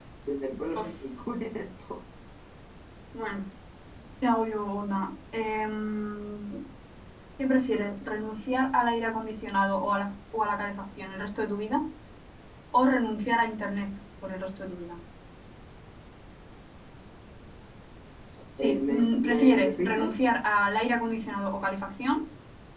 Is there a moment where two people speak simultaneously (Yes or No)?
Yes